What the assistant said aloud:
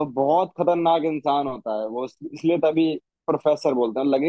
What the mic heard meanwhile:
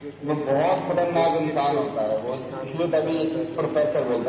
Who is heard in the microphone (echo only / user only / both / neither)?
both